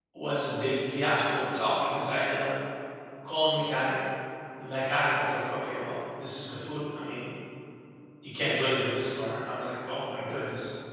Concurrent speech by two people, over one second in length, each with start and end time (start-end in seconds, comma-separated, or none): none